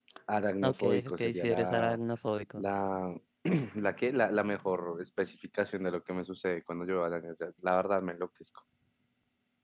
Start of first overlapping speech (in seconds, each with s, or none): 0.6 s